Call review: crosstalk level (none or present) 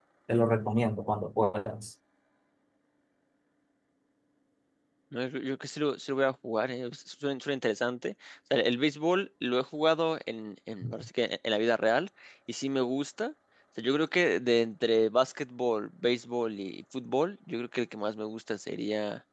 none